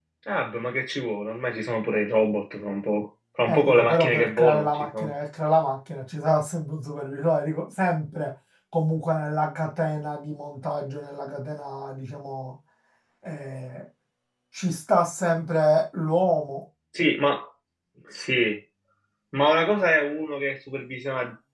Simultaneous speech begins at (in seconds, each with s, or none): 3.4 s